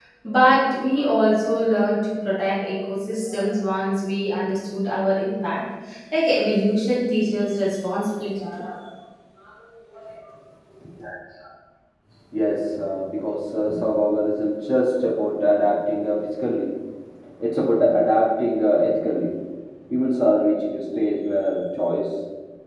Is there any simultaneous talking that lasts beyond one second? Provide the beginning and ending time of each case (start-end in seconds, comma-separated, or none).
none